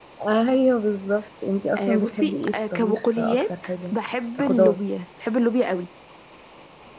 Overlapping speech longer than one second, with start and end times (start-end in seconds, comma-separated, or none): 1.8-3.9